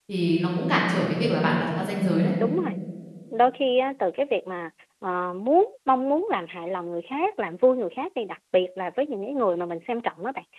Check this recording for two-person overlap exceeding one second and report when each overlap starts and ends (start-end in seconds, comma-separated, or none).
none